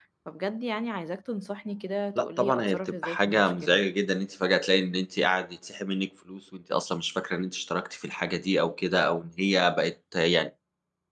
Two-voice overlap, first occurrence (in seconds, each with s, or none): 2.1 s